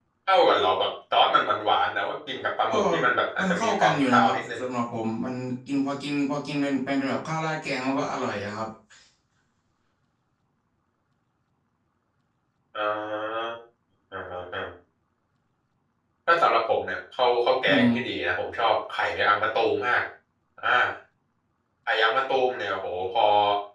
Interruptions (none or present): present